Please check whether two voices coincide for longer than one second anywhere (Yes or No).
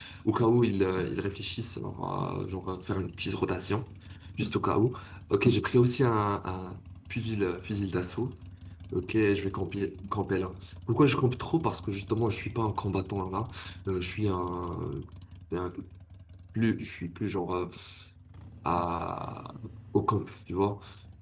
No